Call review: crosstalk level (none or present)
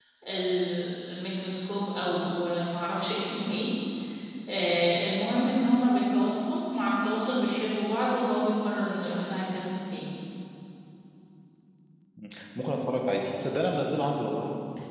none